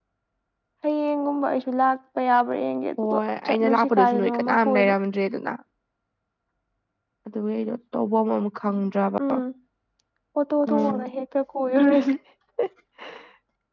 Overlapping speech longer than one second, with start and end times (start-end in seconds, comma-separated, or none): 3.0-4.9